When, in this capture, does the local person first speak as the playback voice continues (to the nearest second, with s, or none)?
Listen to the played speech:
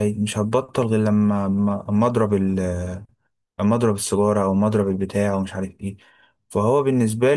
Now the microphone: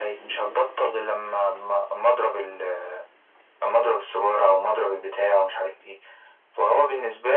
none